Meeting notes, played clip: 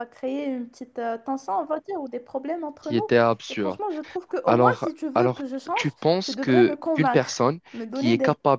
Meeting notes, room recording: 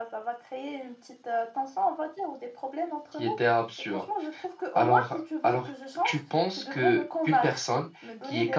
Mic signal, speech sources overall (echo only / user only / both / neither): echo only